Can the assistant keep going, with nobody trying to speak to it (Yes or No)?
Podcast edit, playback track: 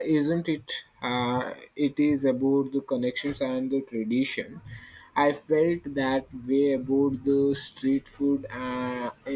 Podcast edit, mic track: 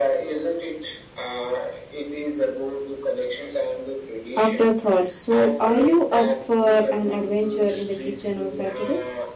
No